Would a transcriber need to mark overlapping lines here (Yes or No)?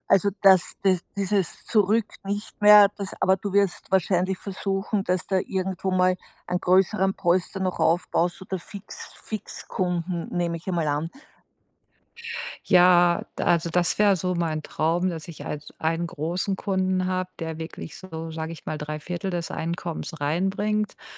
No